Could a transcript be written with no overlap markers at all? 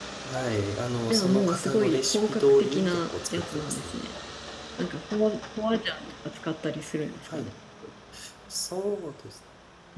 No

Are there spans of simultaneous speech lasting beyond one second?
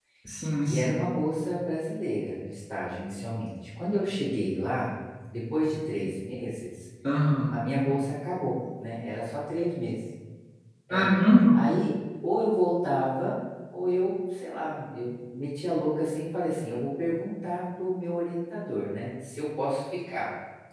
No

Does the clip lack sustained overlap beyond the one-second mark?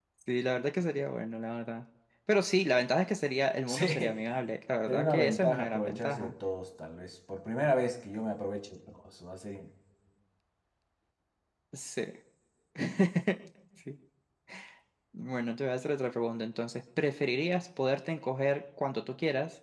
No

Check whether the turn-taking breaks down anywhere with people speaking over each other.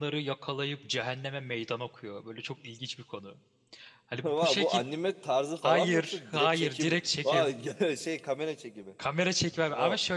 Yes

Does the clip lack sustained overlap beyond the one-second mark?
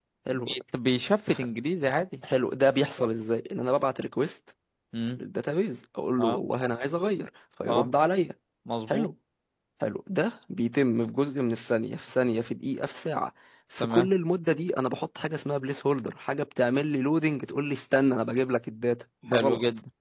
Yes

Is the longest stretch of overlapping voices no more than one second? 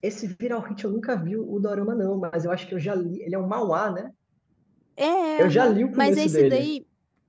No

